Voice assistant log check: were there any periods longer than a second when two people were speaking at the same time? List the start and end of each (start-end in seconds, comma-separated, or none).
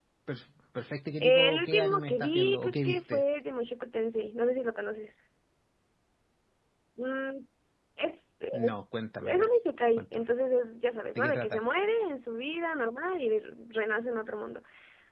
1.2-3.2